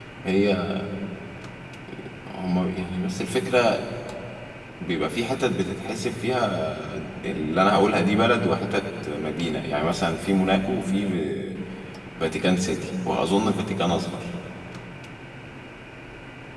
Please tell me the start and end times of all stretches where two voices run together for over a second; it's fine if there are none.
none

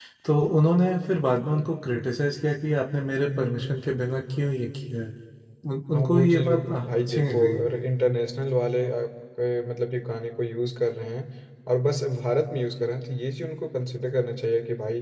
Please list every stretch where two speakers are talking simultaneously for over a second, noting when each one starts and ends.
5.9-7.6

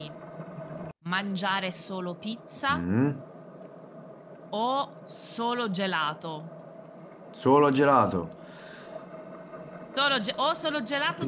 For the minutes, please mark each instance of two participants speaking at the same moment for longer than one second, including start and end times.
none

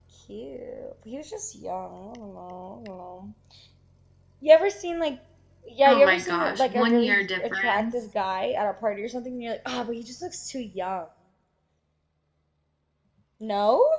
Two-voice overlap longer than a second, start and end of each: 5.9-7.8

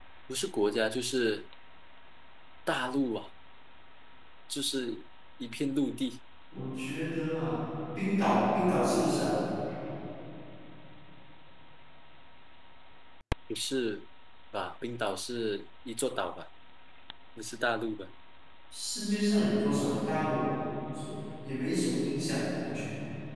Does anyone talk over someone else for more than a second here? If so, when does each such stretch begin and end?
none

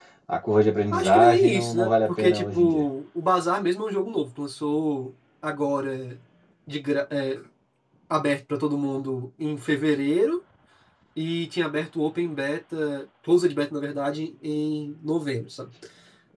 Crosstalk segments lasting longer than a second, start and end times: 0.9-2.8

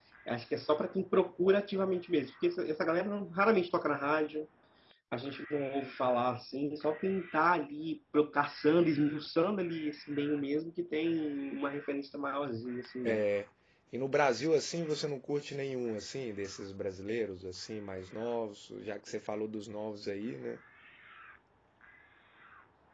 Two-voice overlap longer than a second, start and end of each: none

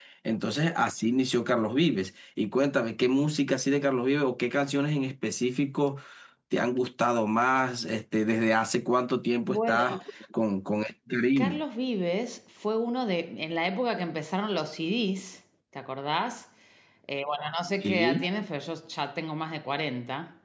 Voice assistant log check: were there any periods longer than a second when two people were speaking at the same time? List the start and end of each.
none

